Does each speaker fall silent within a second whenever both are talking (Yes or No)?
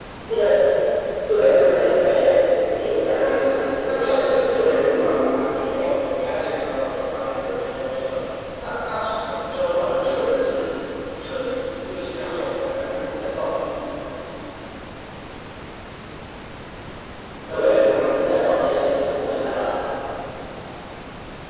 No